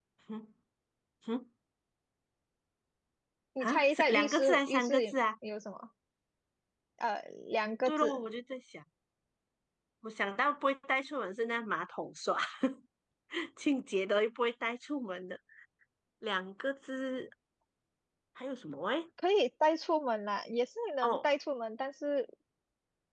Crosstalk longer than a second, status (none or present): present